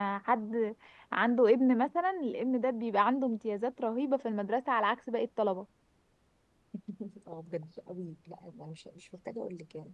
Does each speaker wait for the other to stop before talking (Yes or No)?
Yes